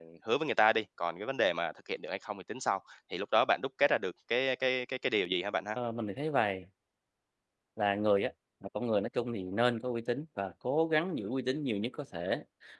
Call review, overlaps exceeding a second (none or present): none